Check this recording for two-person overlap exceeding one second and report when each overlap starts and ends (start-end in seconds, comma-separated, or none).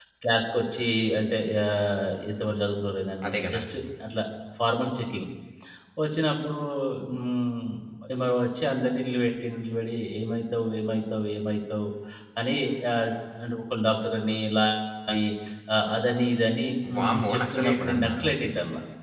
17.0-18.3